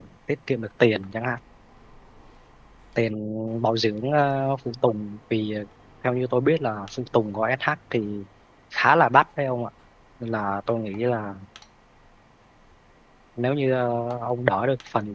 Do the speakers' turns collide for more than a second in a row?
No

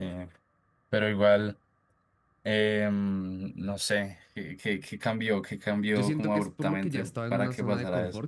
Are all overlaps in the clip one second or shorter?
No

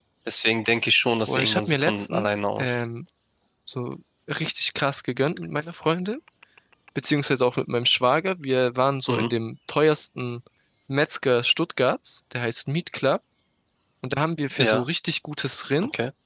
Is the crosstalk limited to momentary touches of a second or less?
No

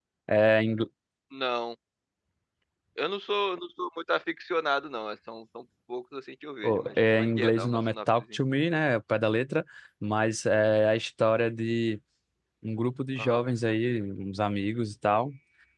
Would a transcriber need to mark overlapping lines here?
Yes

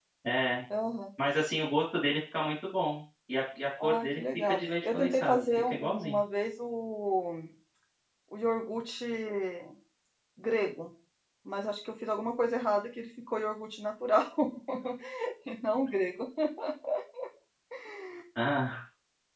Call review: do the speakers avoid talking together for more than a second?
No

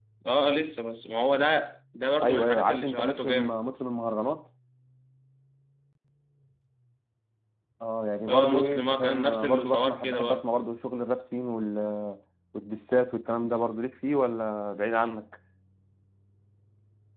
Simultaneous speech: Yes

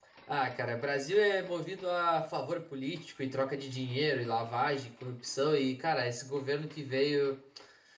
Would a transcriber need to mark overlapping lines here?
No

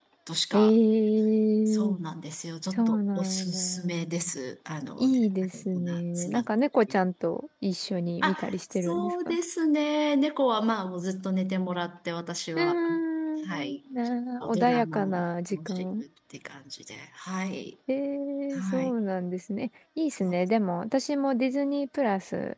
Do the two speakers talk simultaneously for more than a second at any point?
Yes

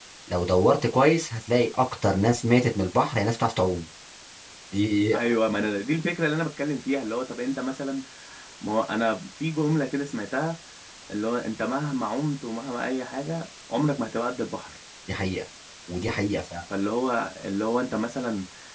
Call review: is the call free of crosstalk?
Yes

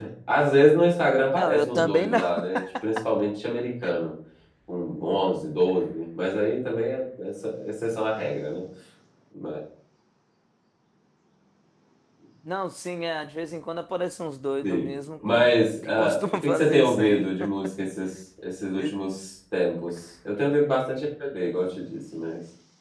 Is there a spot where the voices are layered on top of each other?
Yes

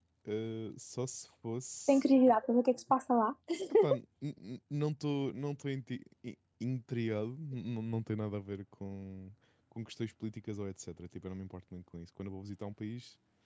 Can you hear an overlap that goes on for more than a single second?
No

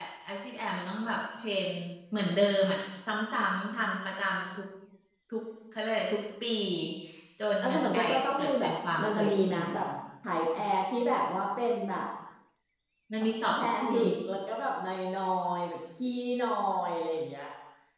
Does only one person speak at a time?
No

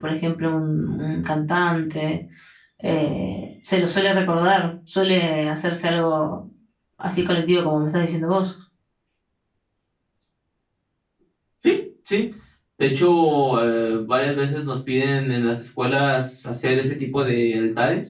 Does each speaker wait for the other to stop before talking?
Yes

